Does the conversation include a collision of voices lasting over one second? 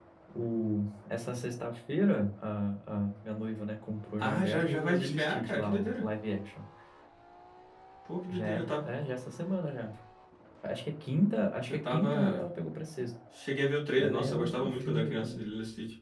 Yes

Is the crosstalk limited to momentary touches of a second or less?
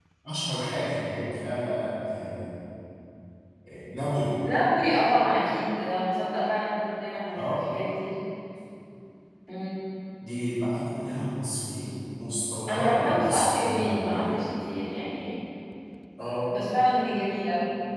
No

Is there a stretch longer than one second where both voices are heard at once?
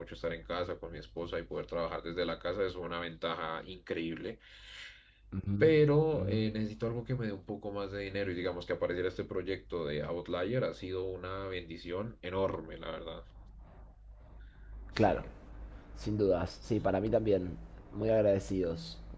No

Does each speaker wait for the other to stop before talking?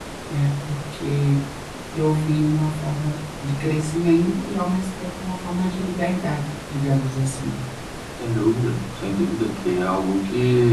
Yes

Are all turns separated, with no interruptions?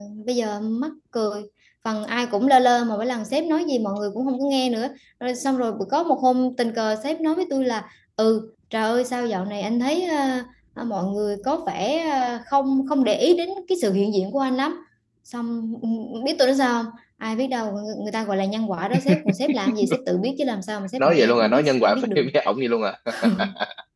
No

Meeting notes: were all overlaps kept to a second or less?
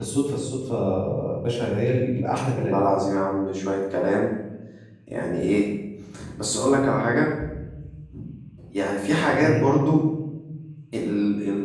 Yes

